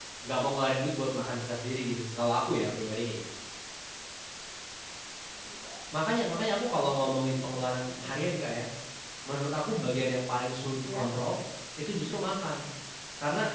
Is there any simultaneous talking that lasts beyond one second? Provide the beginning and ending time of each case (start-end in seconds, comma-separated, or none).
6.2-8.1